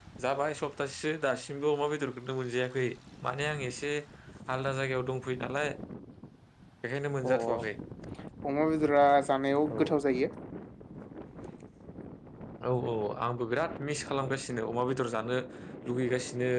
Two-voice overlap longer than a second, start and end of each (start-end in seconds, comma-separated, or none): none